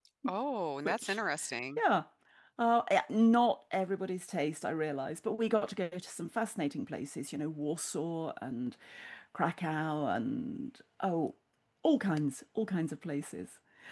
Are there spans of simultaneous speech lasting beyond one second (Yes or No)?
No